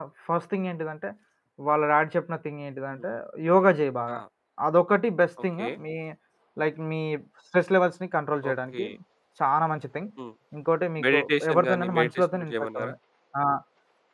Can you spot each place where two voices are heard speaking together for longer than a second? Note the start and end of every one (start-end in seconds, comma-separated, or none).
11.0-12.9